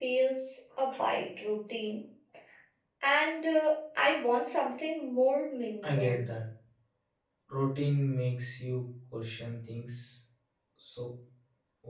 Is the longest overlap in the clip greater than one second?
No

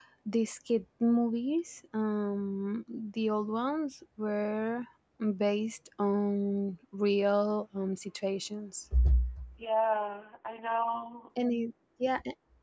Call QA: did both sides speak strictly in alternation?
Yes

